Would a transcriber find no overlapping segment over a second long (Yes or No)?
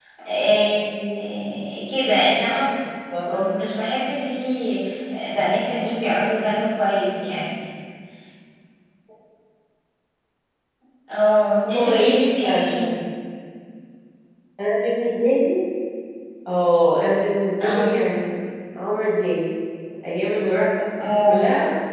No